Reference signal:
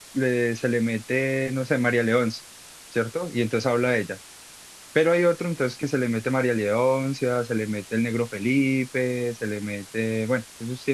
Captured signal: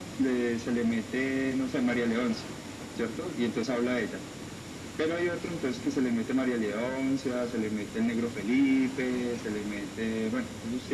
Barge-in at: none

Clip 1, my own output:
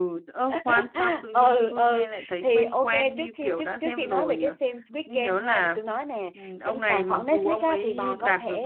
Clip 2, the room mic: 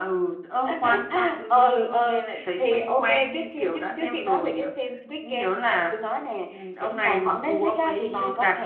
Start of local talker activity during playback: none

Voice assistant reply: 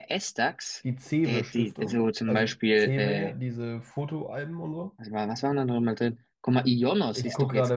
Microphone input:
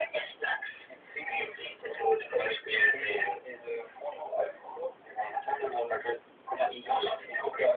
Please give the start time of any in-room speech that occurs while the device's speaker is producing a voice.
none

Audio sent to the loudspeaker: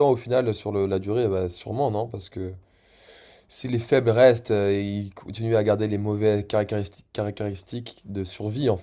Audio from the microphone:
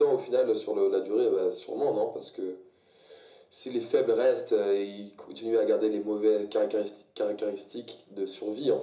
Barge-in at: none

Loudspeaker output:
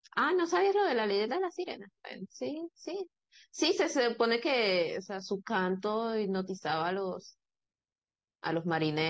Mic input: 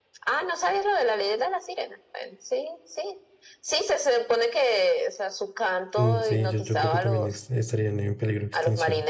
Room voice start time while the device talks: 6 s

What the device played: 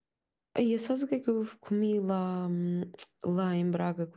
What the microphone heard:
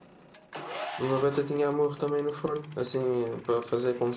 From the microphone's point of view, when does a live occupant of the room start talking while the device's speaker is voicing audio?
1 s

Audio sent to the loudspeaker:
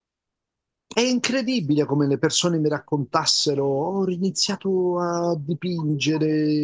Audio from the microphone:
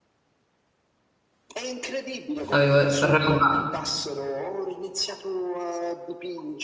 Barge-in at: 2 s

